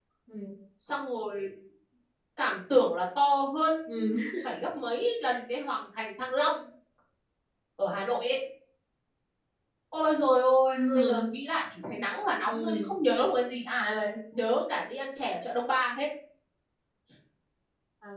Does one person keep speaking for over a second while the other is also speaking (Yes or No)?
No